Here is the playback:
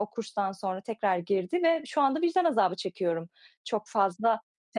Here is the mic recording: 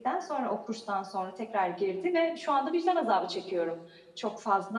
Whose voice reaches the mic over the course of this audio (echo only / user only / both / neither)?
echo only